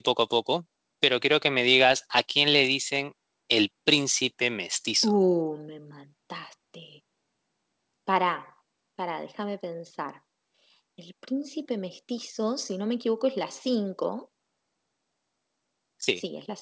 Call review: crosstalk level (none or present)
none